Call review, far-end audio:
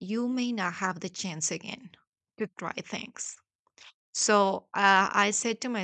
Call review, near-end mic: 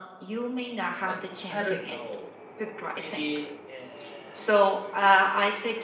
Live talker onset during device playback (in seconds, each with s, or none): 0.9 s